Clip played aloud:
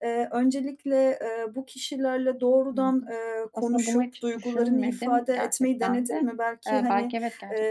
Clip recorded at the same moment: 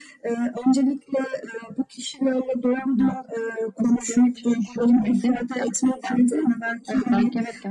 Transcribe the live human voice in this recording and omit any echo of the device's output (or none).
none